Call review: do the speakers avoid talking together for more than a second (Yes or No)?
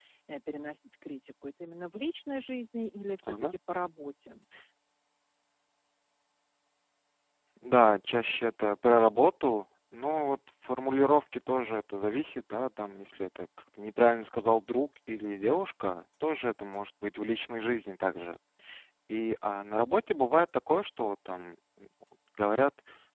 Yes